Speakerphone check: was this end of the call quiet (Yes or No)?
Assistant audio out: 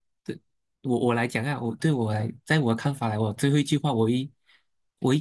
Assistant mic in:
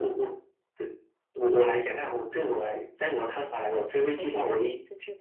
No